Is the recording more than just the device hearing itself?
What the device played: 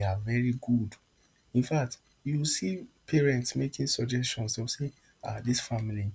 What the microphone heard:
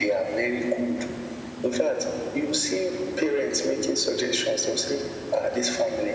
No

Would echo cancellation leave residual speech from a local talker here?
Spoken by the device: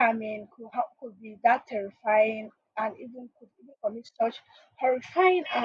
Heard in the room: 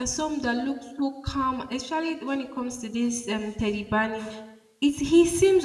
Yes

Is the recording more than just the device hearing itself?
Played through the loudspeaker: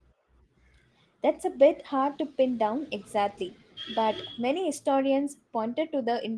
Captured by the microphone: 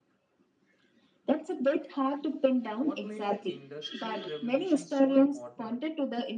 Yes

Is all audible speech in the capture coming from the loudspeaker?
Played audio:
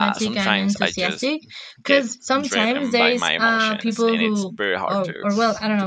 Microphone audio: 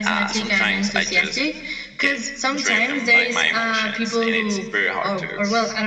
Yes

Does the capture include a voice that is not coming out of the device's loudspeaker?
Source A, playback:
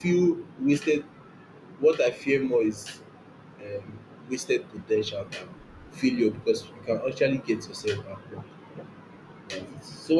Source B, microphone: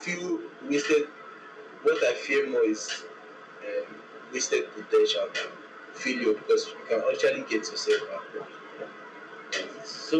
No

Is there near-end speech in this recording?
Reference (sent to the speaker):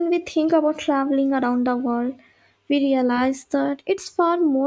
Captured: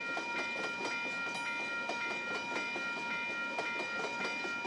No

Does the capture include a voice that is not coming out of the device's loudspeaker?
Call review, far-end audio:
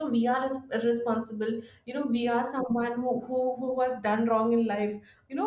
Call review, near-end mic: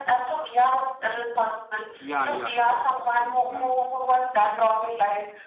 Yes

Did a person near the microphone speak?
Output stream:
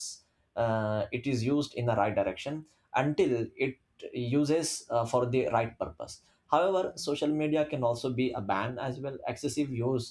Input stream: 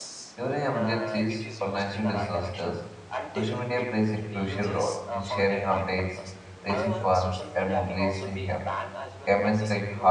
Yes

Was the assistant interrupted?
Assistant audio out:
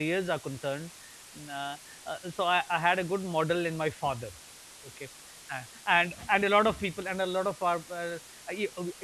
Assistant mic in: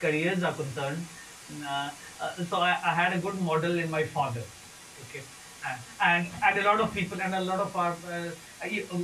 No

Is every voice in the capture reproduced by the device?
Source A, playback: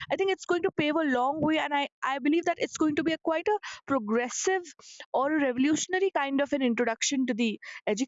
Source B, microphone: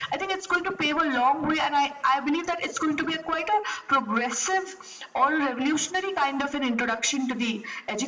Yes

